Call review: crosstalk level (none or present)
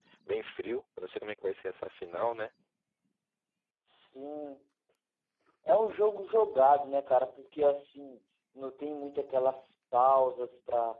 none